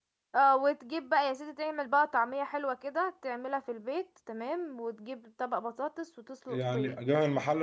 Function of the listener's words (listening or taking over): taking over